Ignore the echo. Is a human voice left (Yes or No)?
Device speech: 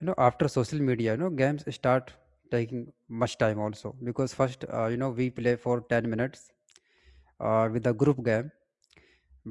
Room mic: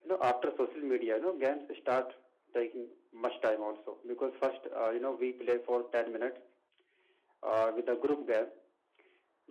No